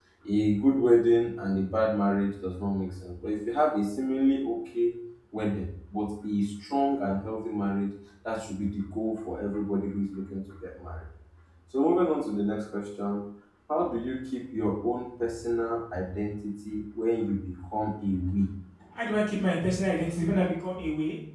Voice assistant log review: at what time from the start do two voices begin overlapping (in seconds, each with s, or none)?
none